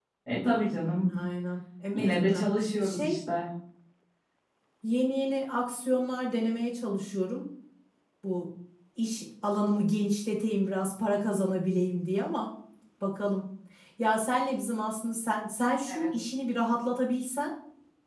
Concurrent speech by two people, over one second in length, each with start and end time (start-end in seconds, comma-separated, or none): 1.9-3.2